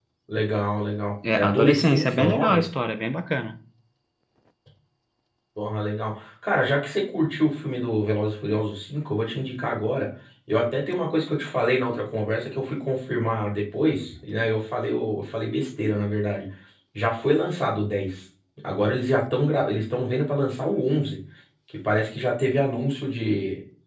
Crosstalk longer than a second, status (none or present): present